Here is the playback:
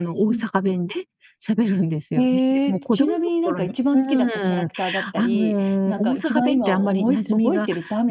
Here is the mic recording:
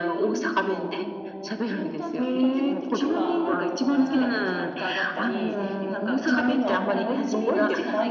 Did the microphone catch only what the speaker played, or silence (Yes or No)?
No